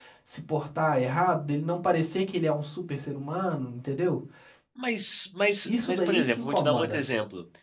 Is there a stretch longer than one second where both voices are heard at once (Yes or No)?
Yes